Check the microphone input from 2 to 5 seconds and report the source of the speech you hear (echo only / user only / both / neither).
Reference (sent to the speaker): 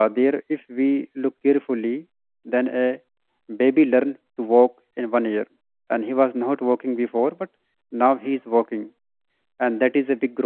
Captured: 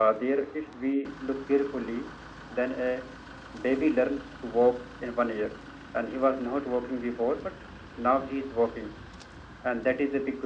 echo only